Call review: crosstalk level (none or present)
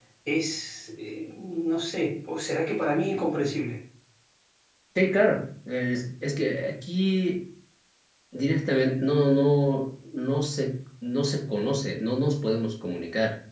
none